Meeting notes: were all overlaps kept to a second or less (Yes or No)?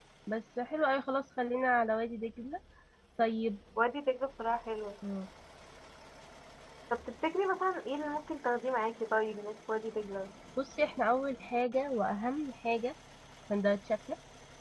Yes